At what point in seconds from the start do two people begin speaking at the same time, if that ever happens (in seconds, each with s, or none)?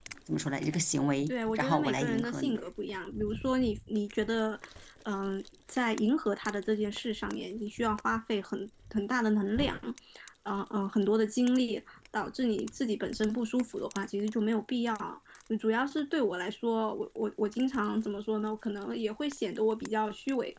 1.3 s